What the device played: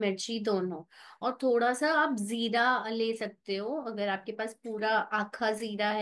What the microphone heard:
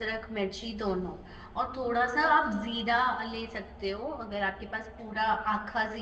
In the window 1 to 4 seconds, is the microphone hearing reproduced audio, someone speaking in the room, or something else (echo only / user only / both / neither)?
echo only